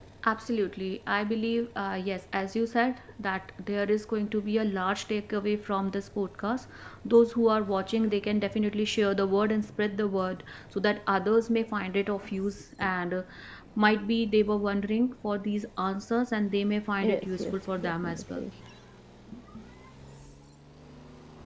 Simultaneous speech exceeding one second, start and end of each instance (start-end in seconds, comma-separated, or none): 17.0-18.5